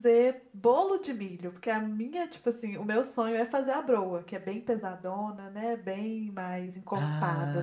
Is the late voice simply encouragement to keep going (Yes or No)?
No